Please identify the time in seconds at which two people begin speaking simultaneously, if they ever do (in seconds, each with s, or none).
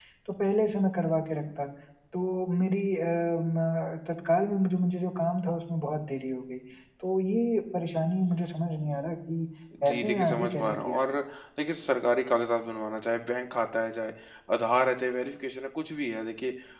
9.9 s